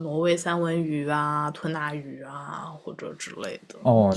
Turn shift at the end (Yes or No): Yes